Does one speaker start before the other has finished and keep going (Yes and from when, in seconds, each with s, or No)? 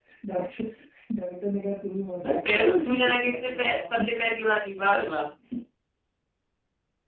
Yes, from 2.2 s